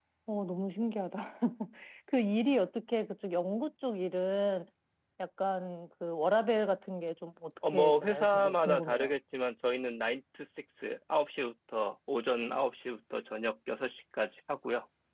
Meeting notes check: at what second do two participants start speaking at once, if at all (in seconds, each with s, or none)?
7.6 s